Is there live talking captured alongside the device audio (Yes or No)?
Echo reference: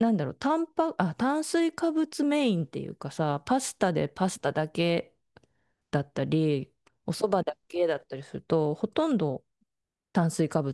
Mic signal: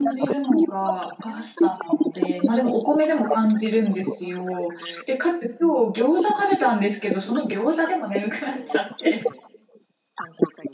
Yes